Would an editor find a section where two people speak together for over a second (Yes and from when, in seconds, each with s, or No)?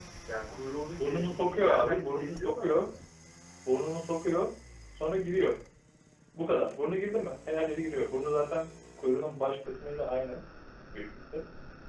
Yes, from 1.0 s